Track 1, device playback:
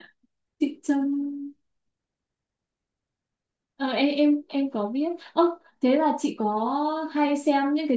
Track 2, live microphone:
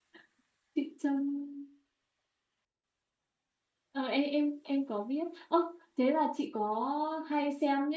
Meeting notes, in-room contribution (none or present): none